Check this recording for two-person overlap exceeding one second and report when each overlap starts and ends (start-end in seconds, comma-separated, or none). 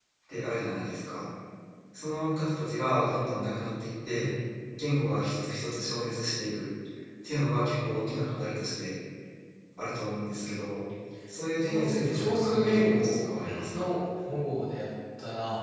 11.6-13.2